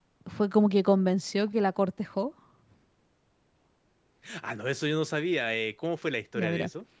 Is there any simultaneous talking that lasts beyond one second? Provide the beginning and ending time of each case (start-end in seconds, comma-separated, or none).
none